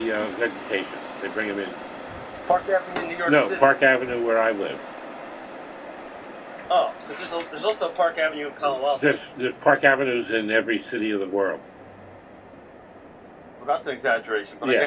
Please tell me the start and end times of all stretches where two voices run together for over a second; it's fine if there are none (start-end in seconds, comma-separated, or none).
none